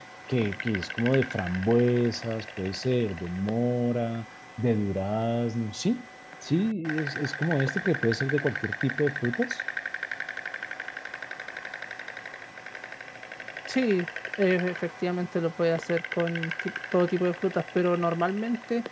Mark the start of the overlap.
none

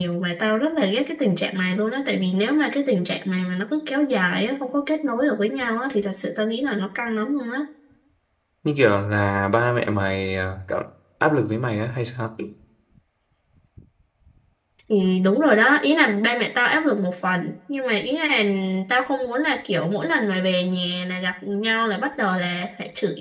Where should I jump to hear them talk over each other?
none

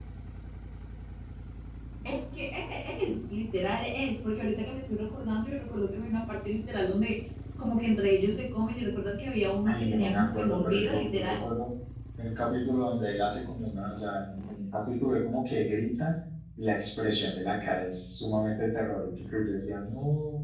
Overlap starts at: 9.7 s

